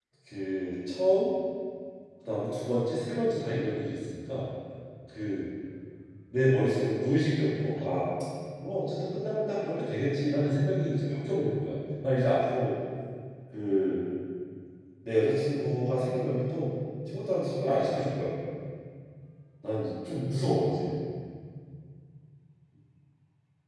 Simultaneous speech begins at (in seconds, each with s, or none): none